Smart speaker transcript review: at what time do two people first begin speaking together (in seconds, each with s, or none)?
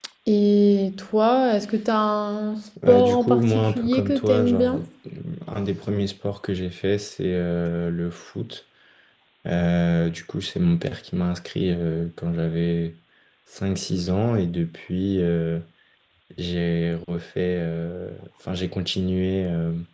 2.8 s